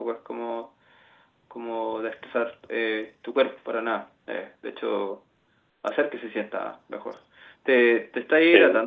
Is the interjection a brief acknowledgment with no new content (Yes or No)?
Yes